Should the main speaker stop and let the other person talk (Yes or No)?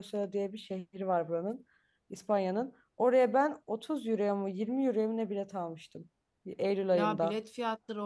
Yes